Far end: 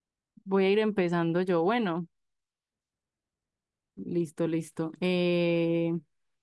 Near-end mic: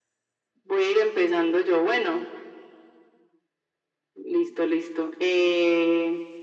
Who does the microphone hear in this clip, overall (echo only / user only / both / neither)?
echo only